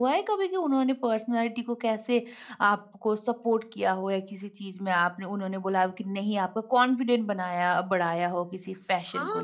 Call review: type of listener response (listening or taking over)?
taking over